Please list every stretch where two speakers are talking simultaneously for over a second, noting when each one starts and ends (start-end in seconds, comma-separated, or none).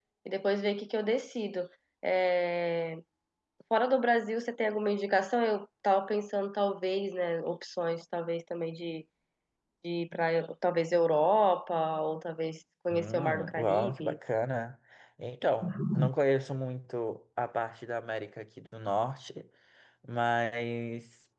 12.9-14.2